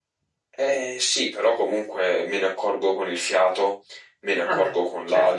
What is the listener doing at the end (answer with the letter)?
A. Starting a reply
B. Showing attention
B